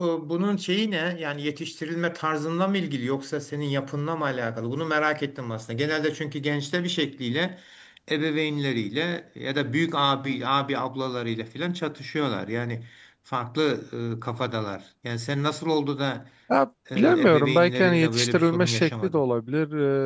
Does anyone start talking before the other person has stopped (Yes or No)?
Yes